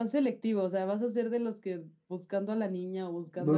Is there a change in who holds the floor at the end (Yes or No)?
Yes